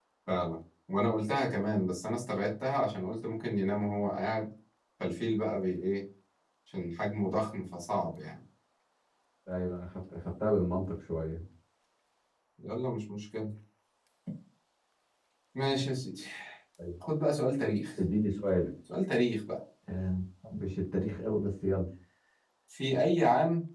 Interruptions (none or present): none